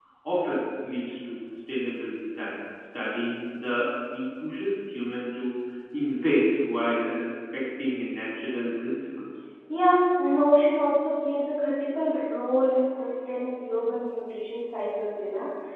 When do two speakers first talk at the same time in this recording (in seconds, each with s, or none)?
none